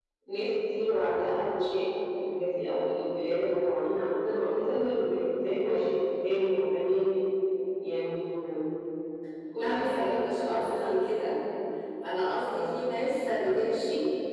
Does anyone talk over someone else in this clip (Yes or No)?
Yes